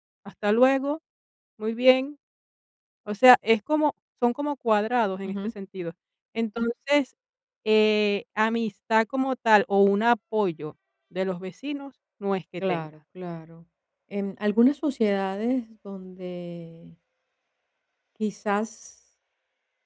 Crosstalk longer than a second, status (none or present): none